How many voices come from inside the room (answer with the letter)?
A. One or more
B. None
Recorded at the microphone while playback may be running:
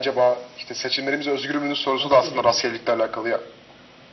A